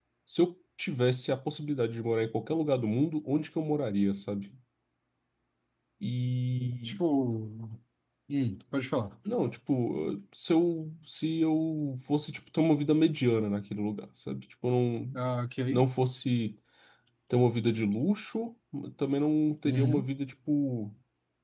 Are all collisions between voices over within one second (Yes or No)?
Yes